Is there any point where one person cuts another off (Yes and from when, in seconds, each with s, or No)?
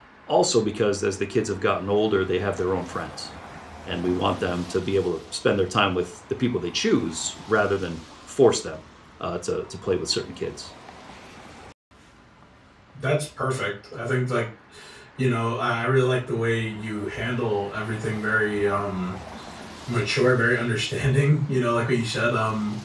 No